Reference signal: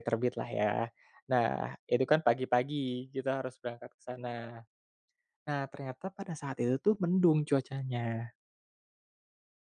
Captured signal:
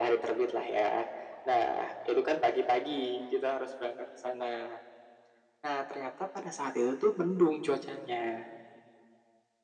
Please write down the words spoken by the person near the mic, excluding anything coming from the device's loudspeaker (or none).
none